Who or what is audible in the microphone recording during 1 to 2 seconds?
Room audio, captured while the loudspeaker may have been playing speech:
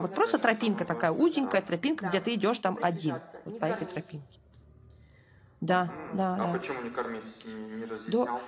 both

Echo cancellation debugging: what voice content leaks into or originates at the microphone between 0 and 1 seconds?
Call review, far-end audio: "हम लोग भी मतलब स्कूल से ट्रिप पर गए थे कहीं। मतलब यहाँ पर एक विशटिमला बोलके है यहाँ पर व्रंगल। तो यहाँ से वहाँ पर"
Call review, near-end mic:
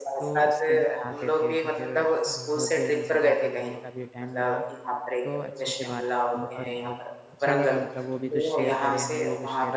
both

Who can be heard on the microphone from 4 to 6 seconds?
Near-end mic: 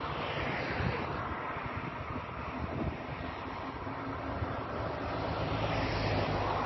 neither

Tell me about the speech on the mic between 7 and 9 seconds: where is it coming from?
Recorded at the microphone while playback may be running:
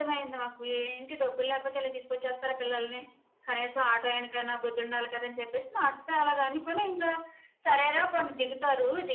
echo only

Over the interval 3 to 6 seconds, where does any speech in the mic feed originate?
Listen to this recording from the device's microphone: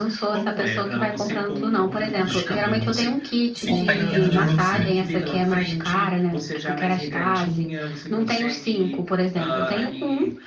both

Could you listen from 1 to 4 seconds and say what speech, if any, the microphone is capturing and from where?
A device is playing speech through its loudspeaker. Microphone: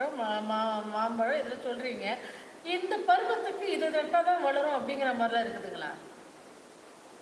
user only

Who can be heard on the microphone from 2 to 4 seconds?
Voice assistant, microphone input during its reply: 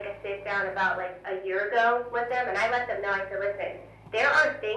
echo only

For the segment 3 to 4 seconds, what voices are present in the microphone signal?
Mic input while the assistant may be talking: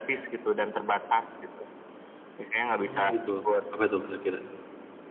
both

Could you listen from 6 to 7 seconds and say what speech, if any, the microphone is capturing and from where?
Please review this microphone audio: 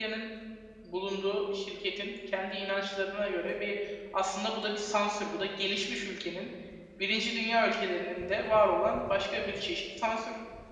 user only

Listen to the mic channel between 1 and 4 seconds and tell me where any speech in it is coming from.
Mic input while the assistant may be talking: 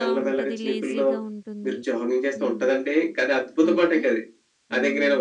both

